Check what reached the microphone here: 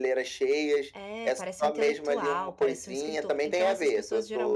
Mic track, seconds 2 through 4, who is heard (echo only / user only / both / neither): both